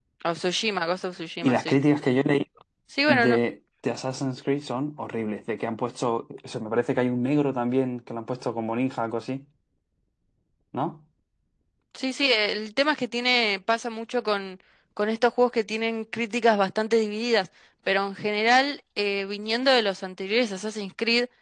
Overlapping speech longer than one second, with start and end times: none

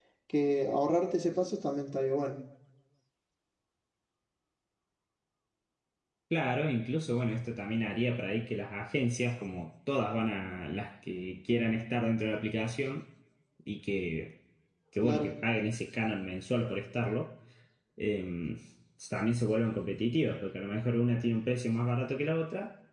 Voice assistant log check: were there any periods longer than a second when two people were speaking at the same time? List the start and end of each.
none

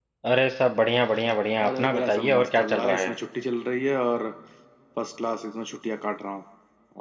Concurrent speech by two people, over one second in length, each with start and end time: 1.7-3.1

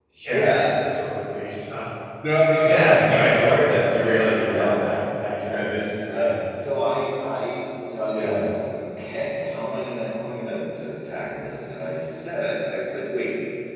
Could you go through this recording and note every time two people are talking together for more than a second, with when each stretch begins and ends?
2.6-5.0

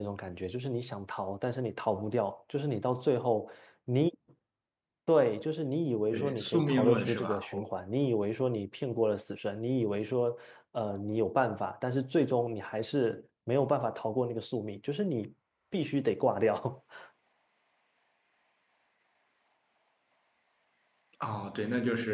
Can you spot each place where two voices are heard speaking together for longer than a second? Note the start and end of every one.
6.1-7.4

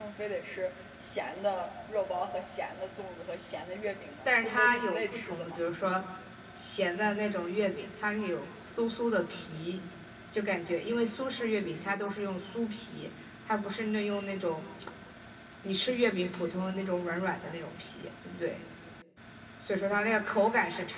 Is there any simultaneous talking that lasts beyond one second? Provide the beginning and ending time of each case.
4.2-5.6

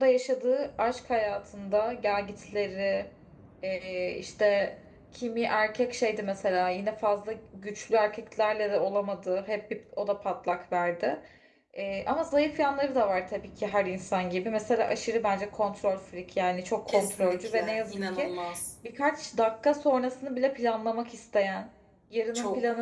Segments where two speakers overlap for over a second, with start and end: 16.9-18.3

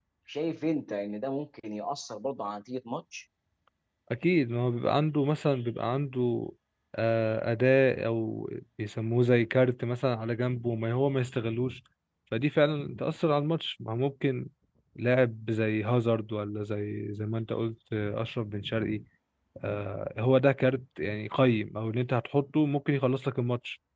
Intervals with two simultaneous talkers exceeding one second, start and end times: none

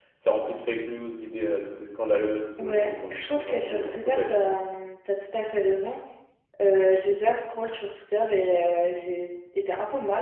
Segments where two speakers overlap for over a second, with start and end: 2.6-4.2

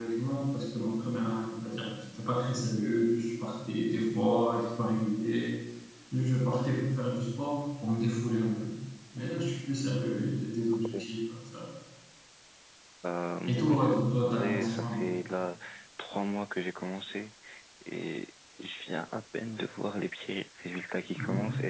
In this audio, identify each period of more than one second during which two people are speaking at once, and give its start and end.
13.4-15.2

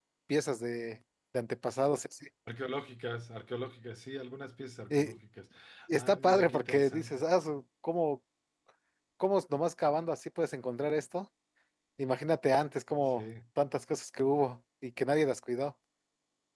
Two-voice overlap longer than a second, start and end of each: 5.9-7.2

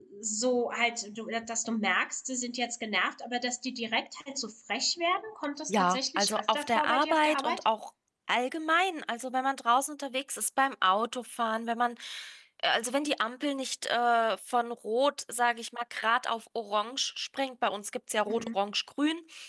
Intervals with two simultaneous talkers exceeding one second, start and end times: 5.7-7.6

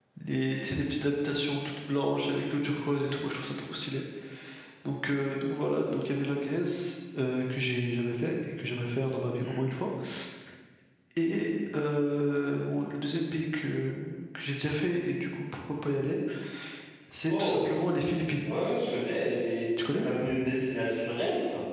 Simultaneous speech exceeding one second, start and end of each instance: none

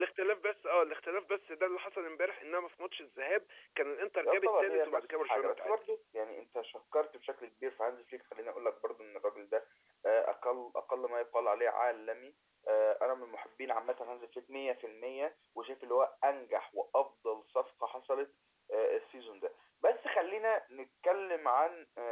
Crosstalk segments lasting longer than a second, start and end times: 4.2-5.7

